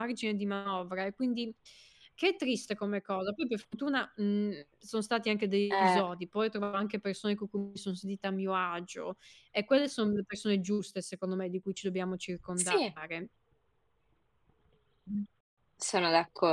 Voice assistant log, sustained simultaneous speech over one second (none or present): none